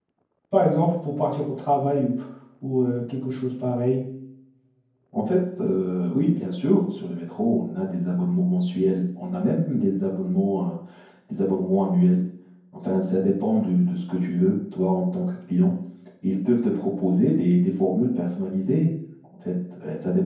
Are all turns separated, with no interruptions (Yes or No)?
Yes